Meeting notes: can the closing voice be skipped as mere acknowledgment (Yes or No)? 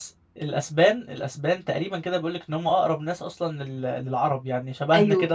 Yes